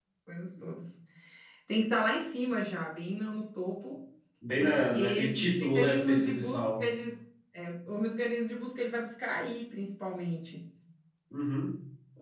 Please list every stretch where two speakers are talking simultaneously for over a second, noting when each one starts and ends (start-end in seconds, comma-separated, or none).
4.6-6.9